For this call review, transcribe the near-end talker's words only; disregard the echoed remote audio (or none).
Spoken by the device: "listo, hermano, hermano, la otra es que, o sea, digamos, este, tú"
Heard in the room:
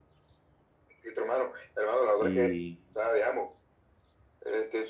y